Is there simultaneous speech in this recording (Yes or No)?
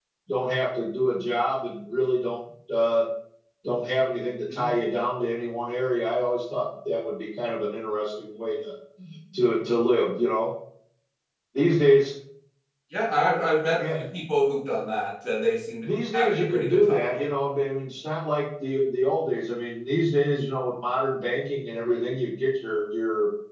Yes